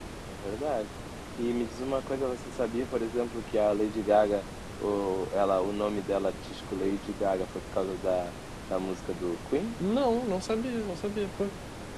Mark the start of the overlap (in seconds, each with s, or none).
none